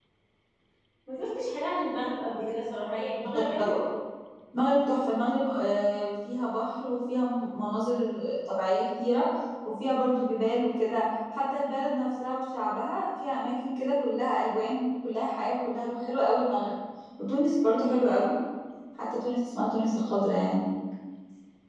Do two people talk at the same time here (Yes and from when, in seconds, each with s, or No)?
No